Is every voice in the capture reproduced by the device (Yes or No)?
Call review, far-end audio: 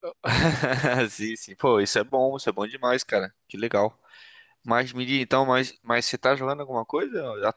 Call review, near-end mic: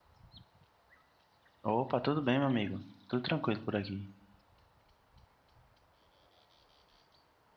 No